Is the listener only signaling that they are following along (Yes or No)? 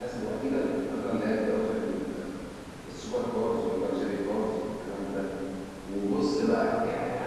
Yes